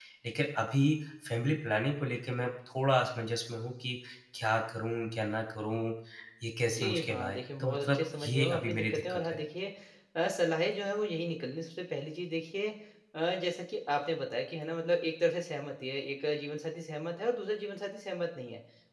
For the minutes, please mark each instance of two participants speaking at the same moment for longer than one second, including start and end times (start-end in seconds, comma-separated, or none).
6.7-9.4